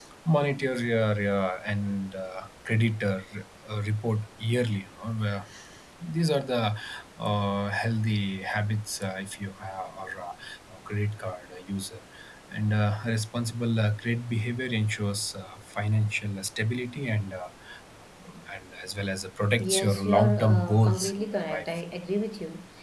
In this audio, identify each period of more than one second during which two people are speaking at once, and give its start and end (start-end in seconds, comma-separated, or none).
19.6-21.6